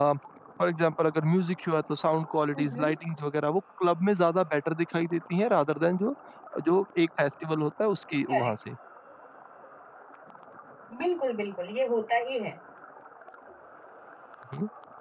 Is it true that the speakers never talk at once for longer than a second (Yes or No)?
Yes